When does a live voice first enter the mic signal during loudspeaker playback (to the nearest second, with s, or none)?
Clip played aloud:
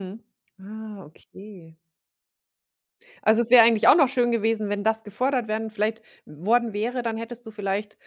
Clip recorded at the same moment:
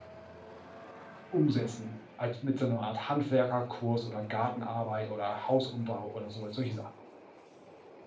1 s